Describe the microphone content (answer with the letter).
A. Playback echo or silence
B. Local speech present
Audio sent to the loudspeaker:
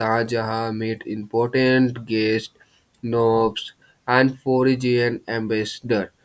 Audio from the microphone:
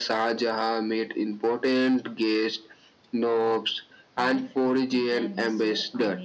B